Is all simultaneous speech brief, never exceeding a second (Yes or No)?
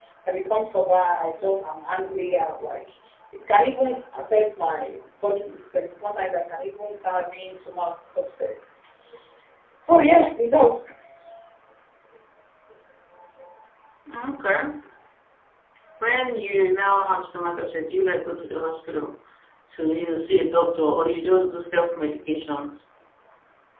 Yes